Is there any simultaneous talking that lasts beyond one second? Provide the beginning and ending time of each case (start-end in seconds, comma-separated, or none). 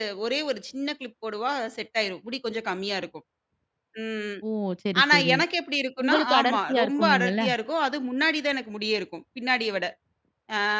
6.0-7.4